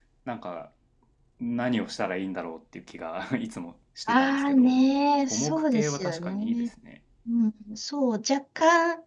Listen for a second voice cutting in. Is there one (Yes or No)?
Yes